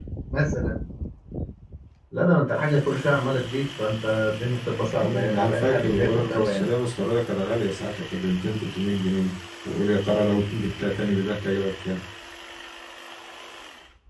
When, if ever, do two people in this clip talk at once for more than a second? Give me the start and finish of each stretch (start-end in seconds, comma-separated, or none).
5.0-6.7